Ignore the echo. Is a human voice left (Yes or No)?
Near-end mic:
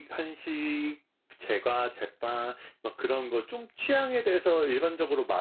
No